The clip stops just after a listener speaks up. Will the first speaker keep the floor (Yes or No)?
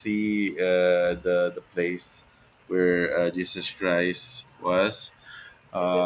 Yes